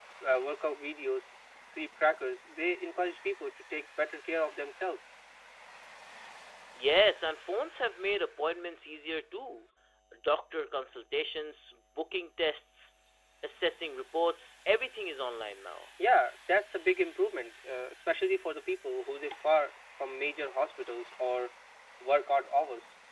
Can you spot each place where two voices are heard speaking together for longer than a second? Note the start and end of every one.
none

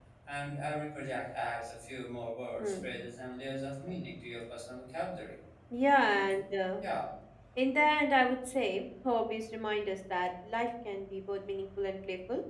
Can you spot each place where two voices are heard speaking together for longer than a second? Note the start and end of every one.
none

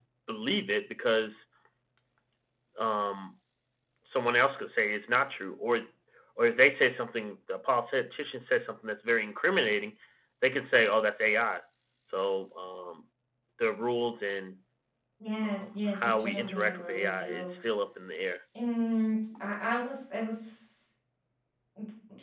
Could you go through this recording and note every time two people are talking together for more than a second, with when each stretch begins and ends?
15.4-17.5

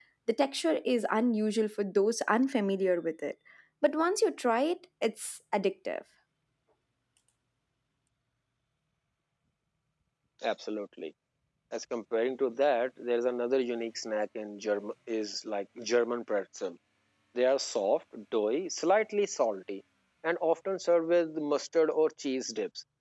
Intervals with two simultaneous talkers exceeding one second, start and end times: none

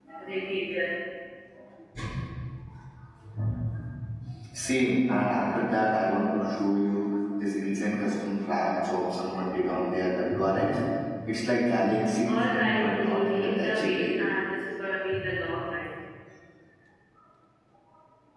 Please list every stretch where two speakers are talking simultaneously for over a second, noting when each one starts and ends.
12.2-14.1

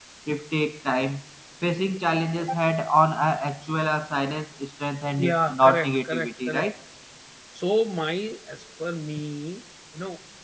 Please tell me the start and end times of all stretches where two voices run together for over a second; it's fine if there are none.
5.2-6.7

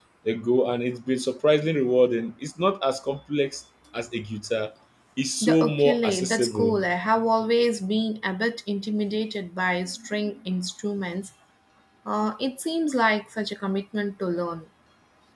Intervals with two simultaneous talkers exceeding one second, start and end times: 5.4-6.8

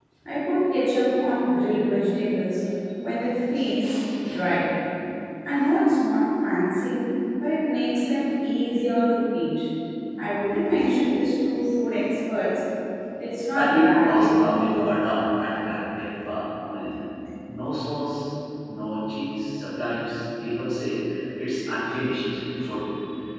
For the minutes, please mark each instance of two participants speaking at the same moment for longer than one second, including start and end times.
13.5-15.0

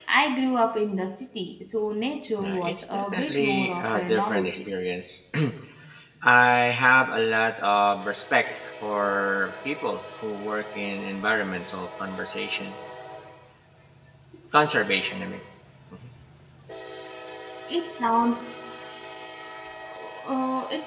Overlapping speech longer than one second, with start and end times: 2.4-4.6

